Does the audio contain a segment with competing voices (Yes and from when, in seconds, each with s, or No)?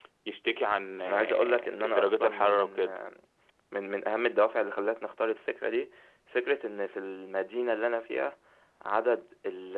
Yes, from 1.0 s